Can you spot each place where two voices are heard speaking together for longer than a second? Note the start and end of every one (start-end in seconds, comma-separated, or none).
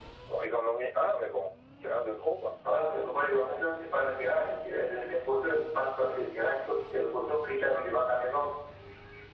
none